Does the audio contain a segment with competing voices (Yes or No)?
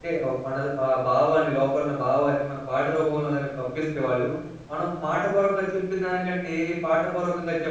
No